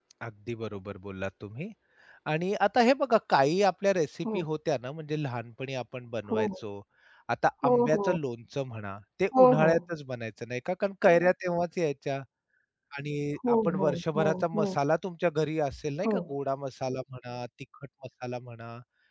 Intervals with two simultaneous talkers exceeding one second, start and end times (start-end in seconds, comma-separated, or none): 13.5-14.7